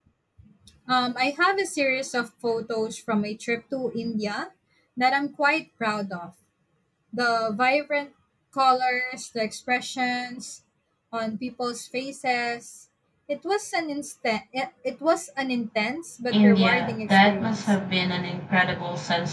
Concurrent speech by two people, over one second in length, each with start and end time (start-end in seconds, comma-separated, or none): 16.3-17.7